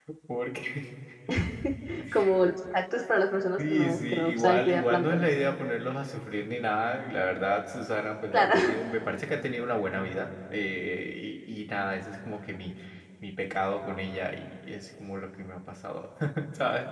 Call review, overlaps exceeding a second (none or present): present